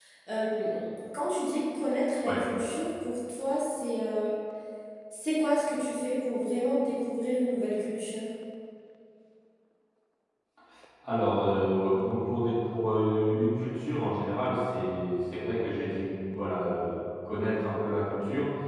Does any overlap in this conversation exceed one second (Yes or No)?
No